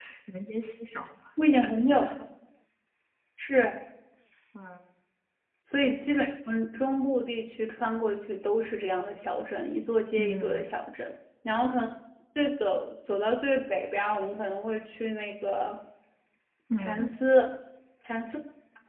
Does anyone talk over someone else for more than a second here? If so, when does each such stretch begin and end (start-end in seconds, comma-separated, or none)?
none